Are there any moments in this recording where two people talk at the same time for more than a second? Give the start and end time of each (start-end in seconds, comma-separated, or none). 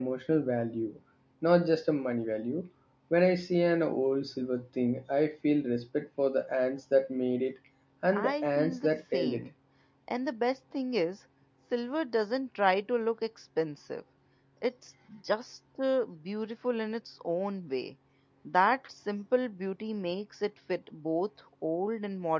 8.1-9.5